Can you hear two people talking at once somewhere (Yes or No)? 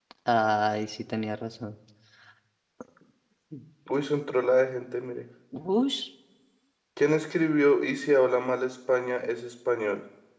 No